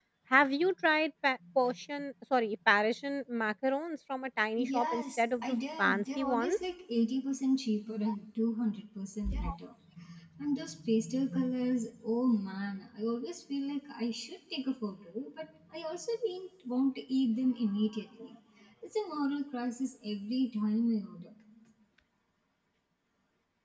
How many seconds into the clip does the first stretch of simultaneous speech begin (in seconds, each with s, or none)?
4.7 s